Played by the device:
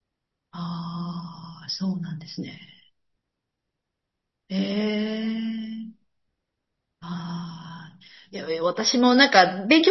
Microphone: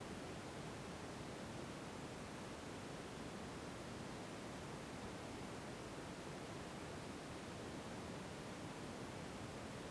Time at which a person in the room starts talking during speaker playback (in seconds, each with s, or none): none